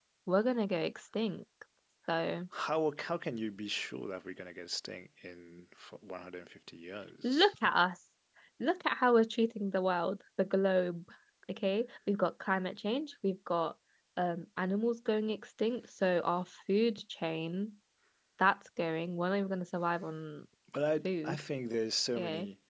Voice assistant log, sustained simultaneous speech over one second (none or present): none